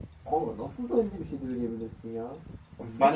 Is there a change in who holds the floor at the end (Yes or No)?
Yes